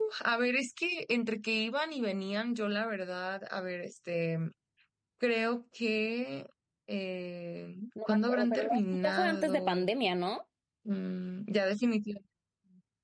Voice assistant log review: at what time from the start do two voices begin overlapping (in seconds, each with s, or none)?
8.0 s